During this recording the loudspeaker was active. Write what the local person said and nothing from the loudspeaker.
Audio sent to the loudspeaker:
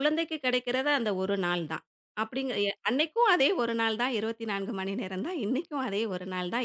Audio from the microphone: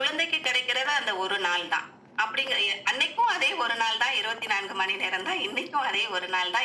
none

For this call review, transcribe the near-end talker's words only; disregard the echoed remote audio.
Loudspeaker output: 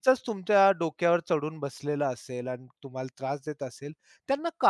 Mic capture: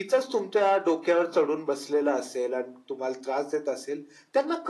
none

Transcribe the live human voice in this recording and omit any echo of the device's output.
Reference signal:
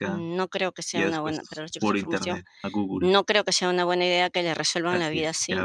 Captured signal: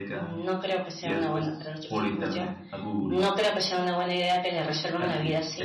none

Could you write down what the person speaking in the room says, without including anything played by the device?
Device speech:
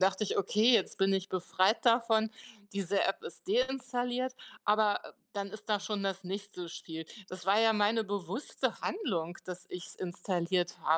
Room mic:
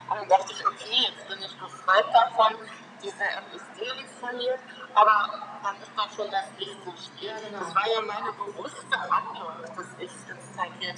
Ja, genau.

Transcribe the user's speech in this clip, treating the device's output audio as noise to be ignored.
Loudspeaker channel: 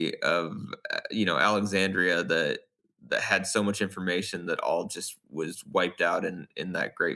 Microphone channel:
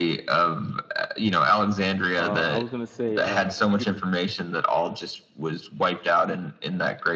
Uh, I was gonna say, uh, the computer,

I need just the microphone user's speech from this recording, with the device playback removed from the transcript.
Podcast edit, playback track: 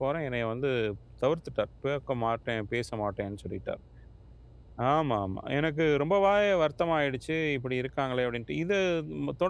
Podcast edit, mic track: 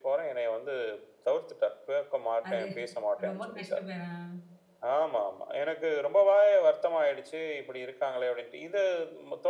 அது ரொம்ப கஷ்டமே தான்.

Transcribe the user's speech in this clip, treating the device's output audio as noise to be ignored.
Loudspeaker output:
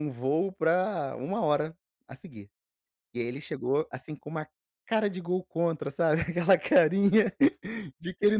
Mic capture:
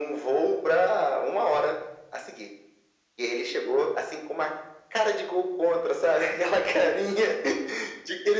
none

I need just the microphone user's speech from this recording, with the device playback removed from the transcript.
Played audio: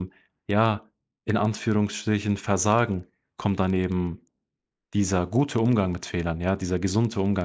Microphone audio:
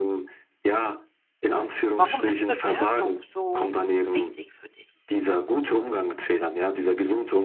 Warum ist Bewertung so wichtig für dich?

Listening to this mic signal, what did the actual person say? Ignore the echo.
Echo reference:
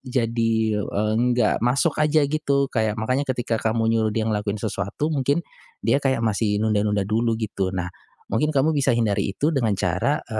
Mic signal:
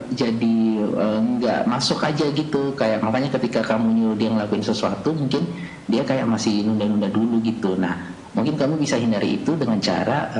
none

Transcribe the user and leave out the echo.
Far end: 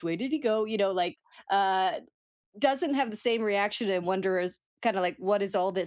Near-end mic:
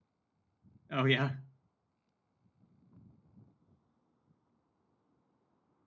Oh yeah,

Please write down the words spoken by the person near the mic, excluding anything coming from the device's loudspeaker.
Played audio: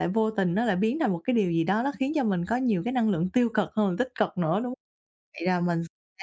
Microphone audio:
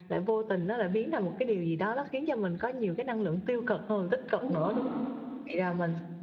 Đúng rồi.

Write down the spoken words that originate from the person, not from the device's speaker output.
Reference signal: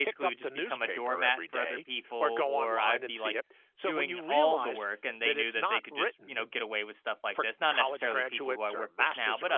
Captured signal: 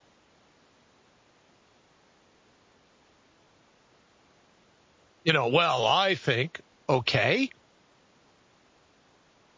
You know, well, I think, okay.

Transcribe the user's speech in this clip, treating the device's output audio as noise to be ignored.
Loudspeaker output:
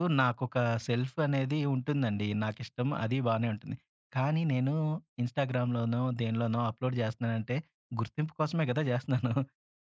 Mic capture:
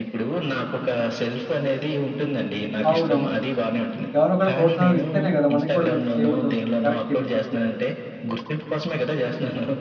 అవునవును. ఎవరో ఒకళ్ళు ప్రోత్సాహం ఇస్తేనే గదా! మనకు గూడా కొంచెం చేయబుద్దవుతది. కరెక్టే మీరు చెప్పింది.

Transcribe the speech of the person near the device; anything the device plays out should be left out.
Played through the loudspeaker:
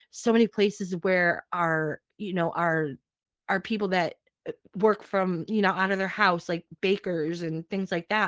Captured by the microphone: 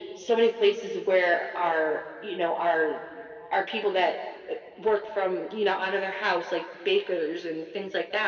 none

